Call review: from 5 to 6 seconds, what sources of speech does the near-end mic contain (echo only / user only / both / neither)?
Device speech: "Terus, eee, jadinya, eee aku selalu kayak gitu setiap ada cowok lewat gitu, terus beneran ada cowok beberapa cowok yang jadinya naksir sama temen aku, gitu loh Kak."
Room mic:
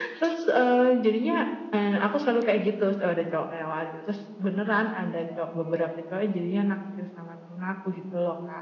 echo only